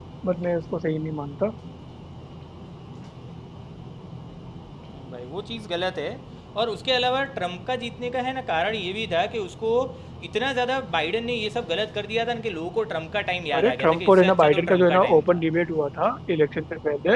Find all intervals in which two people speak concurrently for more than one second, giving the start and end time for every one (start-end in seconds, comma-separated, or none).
13.5-15.4